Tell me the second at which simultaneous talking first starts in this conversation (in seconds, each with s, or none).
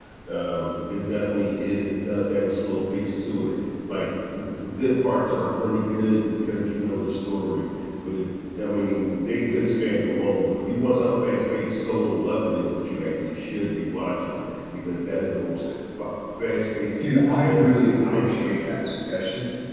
17.4 s